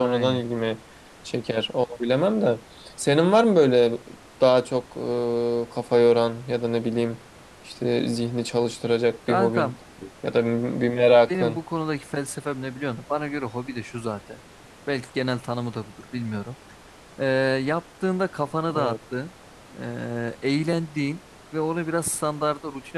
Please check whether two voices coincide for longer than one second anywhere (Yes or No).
No